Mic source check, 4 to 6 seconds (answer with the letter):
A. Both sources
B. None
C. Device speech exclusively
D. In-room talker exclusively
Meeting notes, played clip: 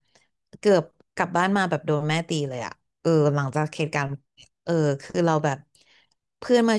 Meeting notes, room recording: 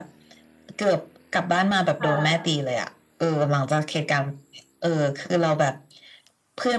C